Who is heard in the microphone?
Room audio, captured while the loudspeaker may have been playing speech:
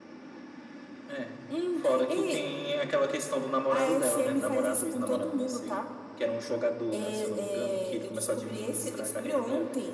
echo only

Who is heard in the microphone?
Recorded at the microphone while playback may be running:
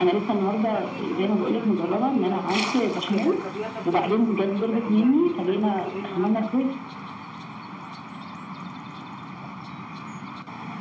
both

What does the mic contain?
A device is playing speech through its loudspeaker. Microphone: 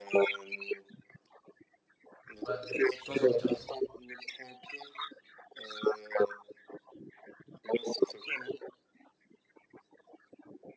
both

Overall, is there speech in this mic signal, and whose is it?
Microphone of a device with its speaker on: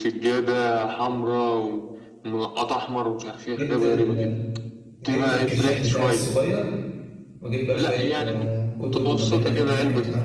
both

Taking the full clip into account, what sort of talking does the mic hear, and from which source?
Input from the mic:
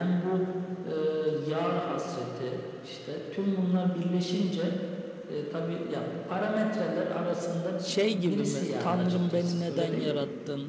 both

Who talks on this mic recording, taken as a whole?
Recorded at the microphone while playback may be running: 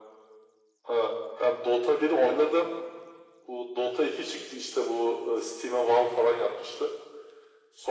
echo only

